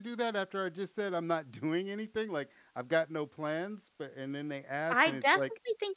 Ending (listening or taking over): taking over